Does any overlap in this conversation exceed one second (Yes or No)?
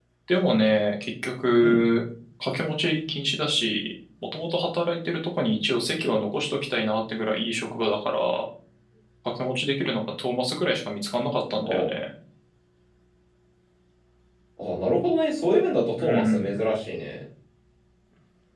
No